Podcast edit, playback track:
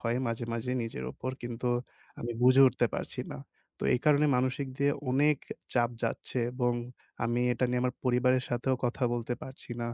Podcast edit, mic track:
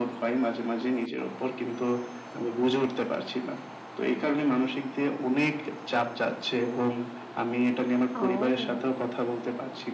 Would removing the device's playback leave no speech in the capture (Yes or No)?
No